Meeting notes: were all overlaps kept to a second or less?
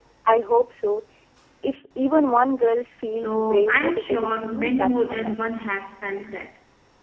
No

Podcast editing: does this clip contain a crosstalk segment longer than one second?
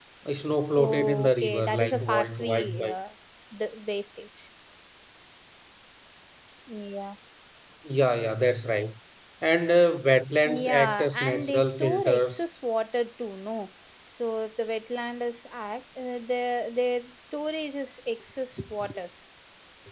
Yes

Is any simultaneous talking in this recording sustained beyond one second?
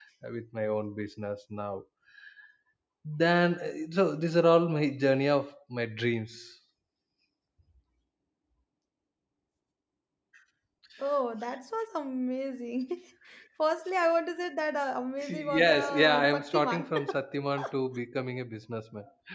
Yes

